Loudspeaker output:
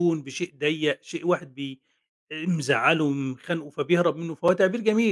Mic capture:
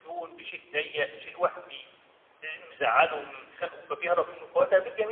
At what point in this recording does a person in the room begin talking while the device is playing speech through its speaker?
none

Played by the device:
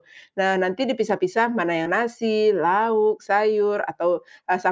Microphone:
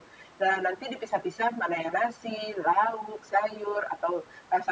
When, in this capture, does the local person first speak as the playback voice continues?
none

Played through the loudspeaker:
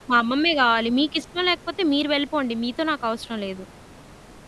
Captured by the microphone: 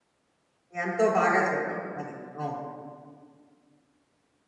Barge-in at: 0.8 s

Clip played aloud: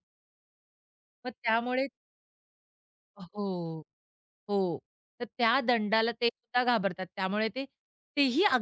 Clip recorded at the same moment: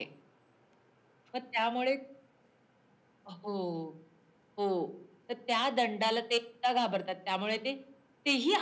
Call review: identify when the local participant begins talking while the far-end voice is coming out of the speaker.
none

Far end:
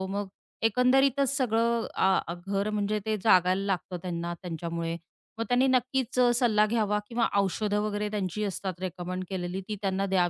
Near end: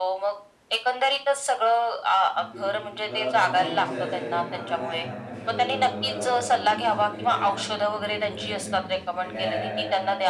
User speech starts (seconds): 2.3 s

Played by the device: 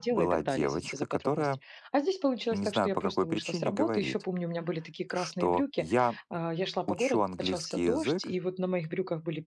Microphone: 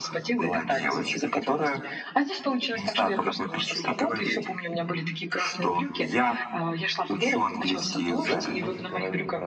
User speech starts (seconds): 8.2 s

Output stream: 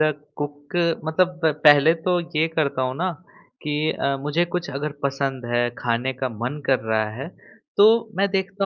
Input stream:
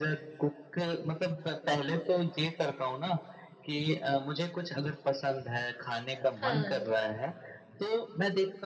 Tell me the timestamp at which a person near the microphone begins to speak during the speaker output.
6.4 s

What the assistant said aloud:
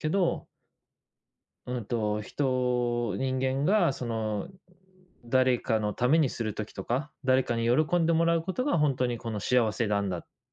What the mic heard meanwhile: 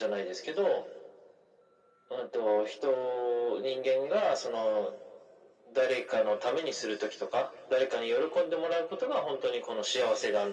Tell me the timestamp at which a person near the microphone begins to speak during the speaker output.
none

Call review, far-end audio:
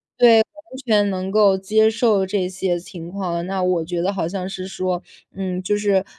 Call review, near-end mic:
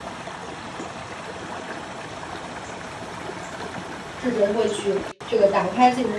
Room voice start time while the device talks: 4.2 s

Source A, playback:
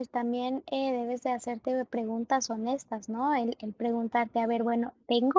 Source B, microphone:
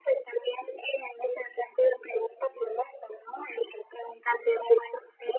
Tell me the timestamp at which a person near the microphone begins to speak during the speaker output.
none

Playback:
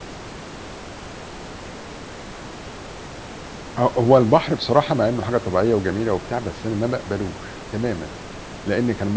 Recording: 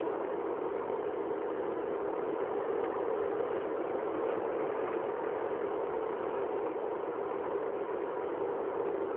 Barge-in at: none

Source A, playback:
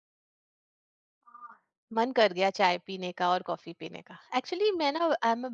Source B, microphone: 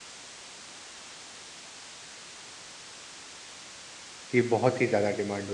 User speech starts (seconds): 4.3 s

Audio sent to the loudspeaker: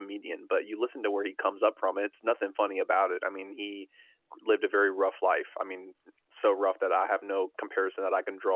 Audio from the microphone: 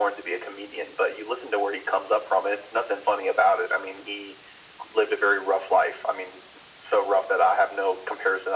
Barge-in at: none

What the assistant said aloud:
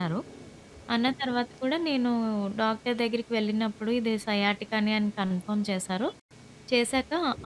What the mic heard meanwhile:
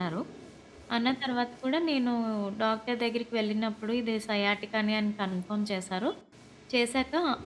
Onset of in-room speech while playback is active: none

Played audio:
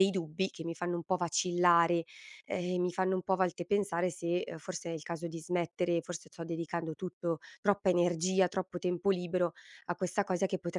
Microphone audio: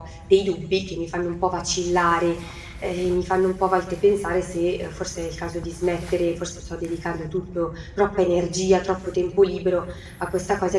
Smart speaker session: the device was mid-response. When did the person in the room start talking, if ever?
none

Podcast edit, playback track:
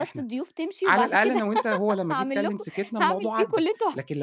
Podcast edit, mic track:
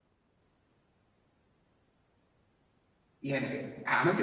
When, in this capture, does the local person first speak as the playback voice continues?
3.2 s

